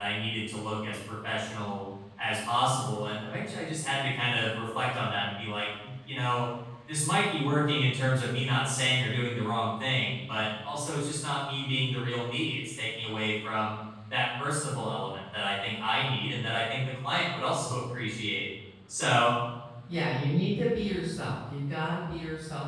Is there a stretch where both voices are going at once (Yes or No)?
No